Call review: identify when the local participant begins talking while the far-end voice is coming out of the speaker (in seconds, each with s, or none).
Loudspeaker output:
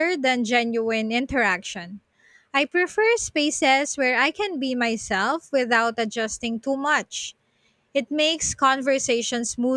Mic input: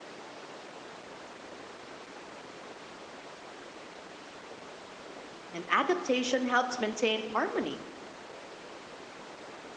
5.5 s